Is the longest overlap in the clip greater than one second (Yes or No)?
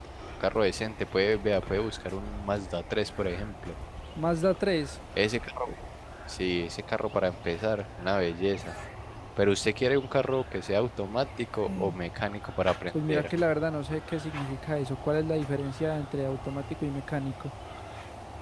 No